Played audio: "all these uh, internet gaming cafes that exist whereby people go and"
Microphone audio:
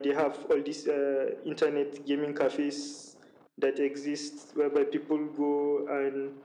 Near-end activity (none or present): none